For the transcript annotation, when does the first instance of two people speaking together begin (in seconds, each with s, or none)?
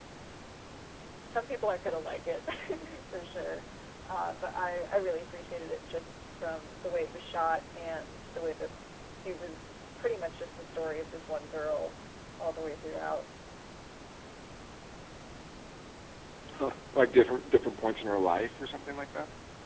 none